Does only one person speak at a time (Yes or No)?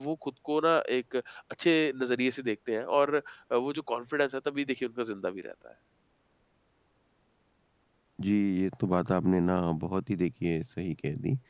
Yes